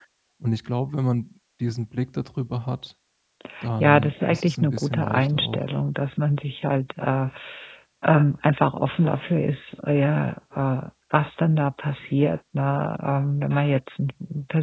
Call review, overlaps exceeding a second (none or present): present